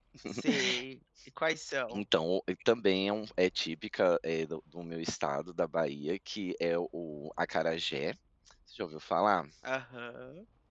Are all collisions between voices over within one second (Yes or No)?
Yes